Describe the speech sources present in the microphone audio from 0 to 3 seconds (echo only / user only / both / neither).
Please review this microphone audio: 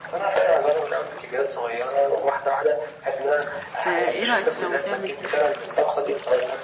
echo only